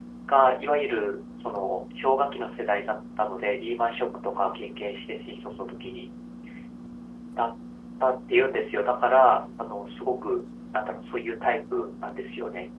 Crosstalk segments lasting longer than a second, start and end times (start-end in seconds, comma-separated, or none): none